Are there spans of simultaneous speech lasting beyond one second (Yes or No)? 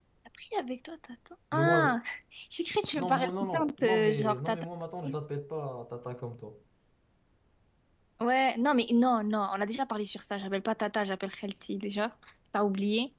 Yes